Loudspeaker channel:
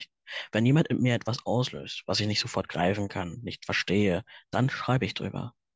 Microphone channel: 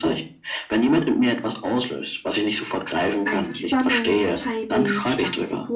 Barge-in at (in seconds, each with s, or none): 3.2 s